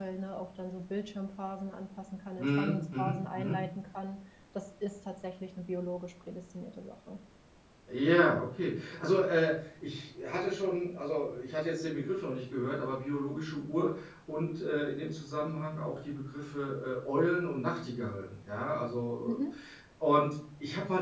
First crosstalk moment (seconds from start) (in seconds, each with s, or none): 2.4 s